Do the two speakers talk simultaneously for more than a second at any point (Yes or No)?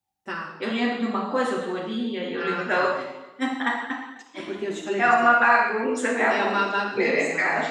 Yes